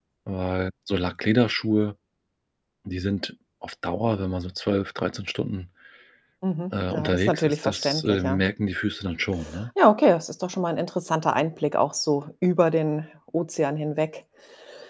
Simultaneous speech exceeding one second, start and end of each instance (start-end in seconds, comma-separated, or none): 6.9-8.4